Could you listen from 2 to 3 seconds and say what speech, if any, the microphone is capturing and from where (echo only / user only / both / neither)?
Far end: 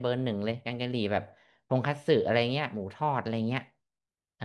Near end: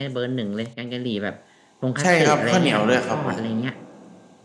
both